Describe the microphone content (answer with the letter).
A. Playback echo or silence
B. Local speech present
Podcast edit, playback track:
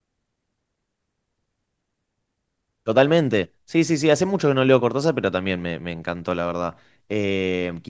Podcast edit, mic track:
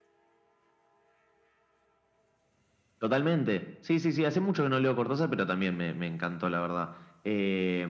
A